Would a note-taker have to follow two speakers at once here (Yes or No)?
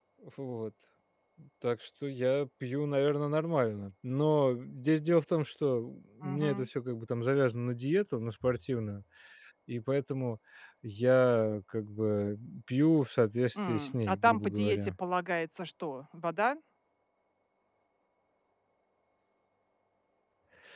Yes